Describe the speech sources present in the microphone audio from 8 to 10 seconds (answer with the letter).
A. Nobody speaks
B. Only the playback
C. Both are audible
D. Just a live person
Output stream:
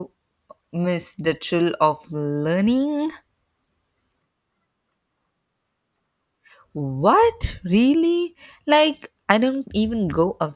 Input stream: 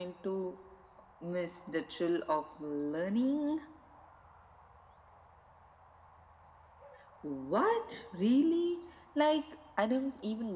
B